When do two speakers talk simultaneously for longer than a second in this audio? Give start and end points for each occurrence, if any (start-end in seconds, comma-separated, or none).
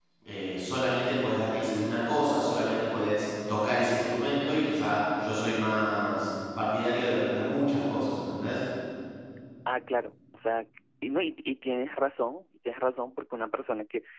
none